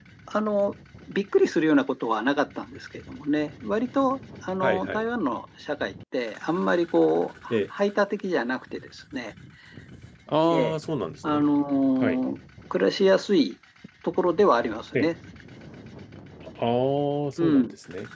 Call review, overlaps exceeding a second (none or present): none